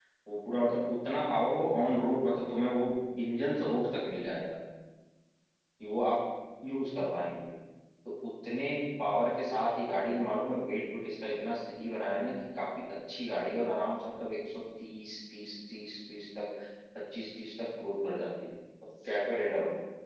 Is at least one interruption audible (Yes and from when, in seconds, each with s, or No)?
No